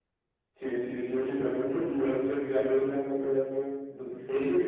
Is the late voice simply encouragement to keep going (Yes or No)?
No